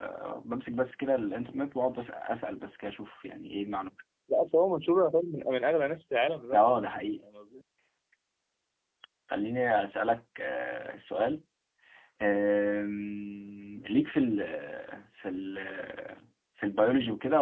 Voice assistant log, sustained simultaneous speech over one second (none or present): none